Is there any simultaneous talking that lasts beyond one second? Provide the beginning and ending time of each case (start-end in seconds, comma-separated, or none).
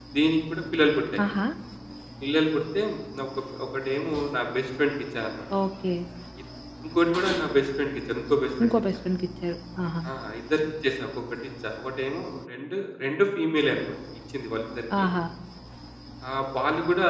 none